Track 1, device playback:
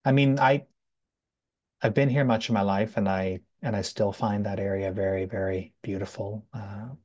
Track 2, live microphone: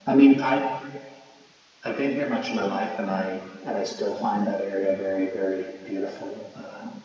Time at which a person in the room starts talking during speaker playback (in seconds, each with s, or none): none